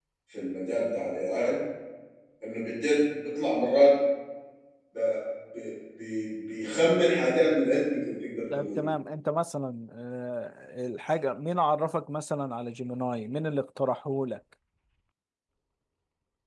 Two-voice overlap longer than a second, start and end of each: none

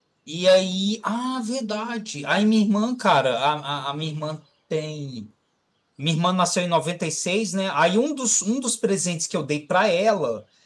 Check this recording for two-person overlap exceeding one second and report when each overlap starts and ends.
none

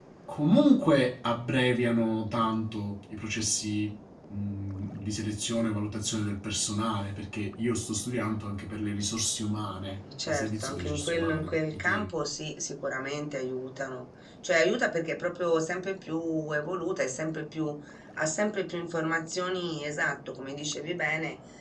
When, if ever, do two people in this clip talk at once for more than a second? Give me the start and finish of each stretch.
10.3-12.1

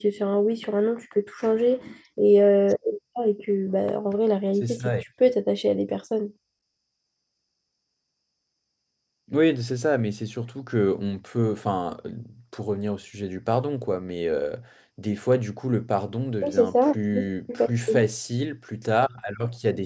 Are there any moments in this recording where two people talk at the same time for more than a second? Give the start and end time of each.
16.4-18.0

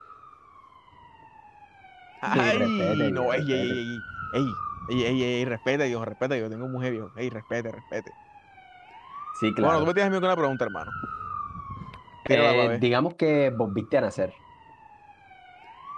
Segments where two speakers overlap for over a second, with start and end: 2.3-3.8

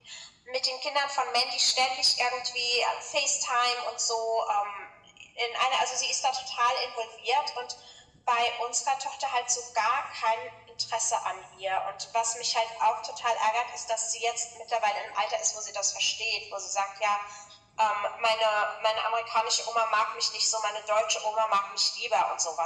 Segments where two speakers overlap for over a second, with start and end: none

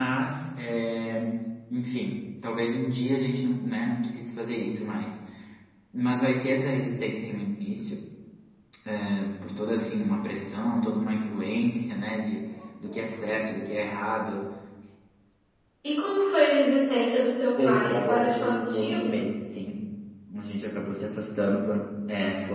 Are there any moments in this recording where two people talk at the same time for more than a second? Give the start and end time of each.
17.6-19.2

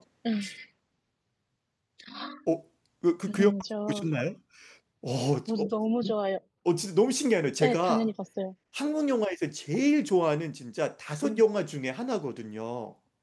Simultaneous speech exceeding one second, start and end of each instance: none

